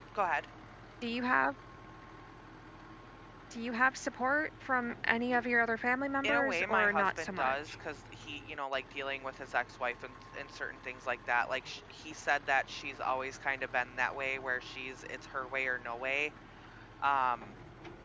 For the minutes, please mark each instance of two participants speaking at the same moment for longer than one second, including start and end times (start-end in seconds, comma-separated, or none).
6.2-7.5